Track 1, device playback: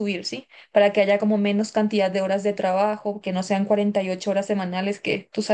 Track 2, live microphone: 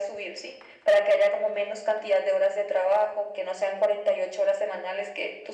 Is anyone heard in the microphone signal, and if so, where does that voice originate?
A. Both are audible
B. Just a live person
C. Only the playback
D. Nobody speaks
C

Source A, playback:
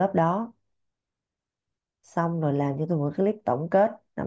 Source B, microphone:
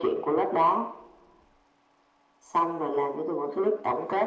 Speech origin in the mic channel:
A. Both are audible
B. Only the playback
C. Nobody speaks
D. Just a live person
B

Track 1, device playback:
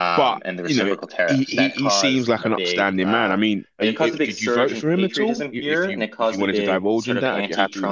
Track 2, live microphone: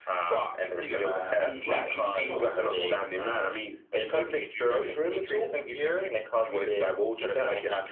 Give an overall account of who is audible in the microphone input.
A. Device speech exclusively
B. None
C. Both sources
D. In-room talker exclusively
C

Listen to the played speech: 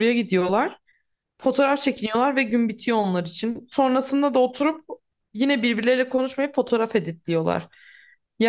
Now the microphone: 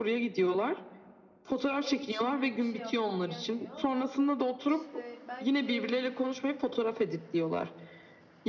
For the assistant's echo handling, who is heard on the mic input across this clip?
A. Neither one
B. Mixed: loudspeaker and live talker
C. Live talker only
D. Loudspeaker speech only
B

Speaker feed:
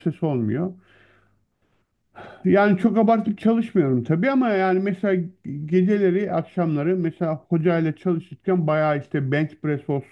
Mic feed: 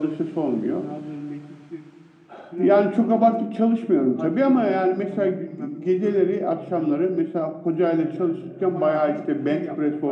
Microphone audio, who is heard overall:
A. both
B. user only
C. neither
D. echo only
A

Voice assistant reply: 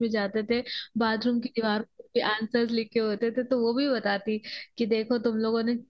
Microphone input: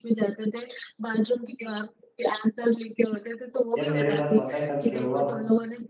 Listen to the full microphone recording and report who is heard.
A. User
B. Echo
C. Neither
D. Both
D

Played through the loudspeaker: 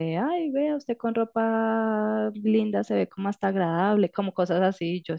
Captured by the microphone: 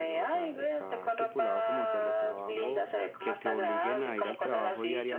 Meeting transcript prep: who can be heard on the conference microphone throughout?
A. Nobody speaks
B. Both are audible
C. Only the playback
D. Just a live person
B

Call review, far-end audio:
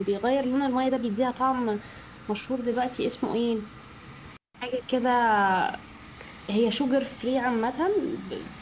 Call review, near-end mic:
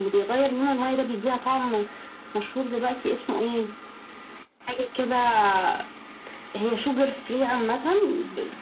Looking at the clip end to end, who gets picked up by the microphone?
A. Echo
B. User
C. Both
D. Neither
A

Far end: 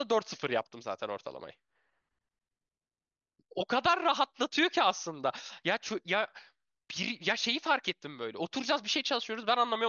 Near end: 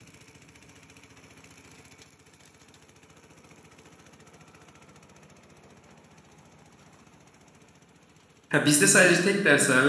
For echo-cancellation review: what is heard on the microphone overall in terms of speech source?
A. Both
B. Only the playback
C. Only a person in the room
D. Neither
C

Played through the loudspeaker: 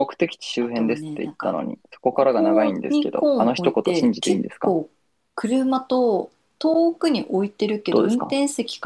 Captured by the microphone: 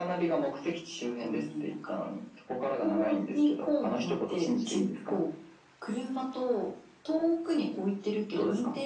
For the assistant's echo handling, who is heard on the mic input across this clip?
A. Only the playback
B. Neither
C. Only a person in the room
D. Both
A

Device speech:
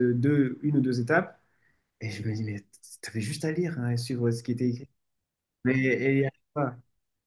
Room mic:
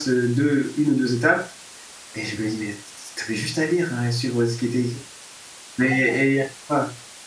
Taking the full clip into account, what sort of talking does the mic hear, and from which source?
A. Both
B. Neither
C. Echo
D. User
A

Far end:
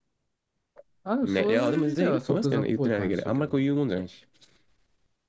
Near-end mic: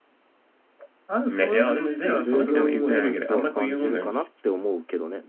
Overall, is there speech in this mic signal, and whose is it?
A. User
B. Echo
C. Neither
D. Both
D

